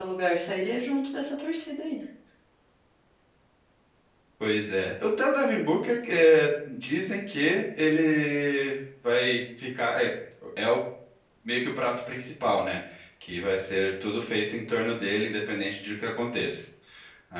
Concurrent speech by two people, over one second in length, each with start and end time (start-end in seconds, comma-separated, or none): none